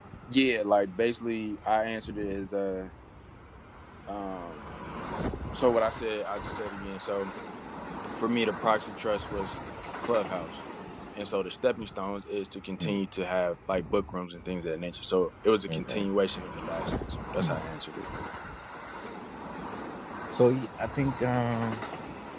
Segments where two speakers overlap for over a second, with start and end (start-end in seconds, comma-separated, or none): none